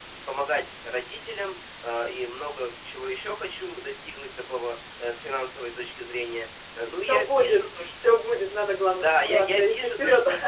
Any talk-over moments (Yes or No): Yes